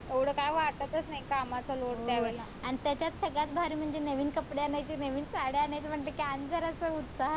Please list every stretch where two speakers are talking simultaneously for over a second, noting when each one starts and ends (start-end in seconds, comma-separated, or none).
none